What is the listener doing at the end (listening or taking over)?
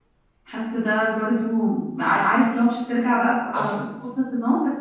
listening